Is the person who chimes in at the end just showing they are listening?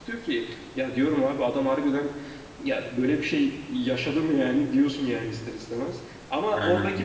Yes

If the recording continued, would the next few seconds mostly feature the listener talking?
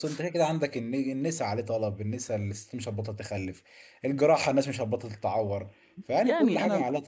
Yes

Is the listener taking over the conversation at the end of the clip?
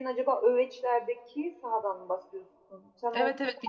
Yes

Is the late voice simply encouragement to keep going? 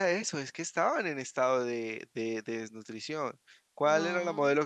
Yes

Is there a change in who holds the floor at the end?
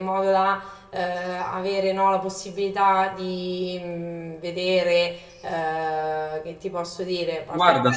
Yes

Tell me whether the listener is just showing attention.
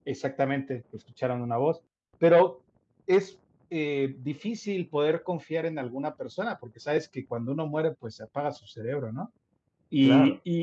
Yes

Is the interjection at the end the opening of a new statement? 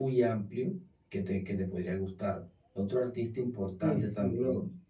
Yes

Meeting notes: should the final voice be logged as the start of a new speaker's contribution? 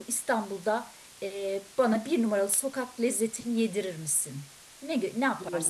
Yes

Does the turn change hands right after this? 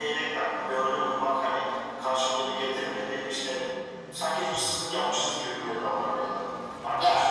No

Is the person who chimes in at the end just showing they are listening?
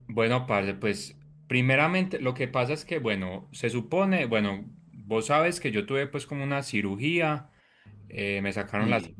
Yes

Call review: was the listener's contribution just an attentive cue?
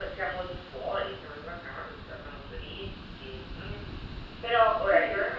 Yes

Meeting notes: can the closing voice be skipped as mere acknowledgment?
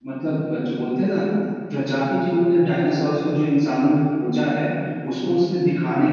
Yes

